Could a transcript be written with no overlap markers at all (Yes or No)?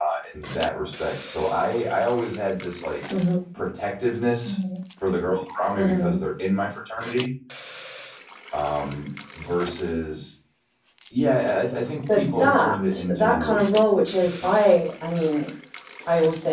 No